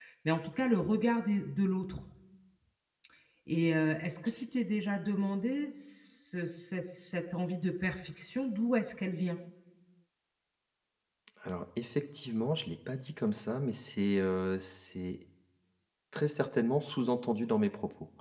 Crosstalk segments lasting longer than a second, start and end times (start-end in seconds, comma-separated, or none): none